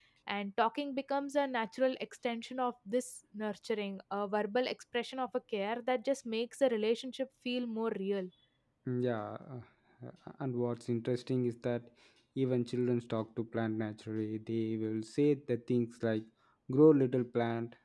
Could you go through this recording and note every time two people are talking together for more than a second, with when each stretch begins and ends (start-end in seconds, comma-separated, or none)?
none